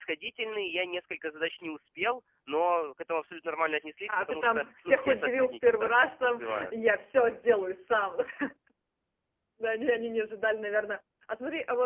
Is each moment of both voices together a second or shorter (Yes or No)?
No